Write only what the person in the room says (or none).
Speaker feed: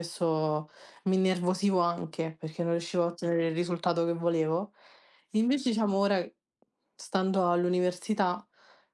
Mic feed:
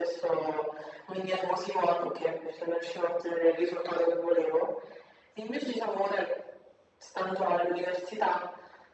none